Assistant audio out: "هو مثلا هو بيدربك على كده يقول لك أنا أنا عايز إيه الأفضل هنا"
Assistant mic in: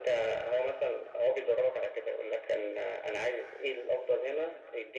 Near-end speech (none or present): none